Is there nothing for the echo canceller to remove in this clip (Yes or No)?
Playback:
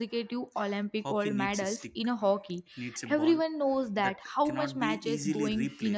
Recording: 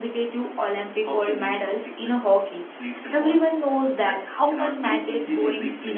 No